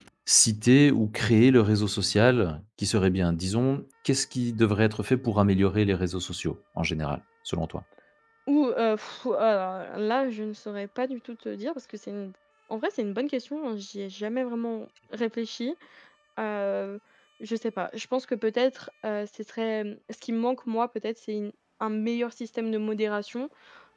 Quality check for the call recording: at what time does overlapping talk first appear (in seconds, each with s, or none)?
none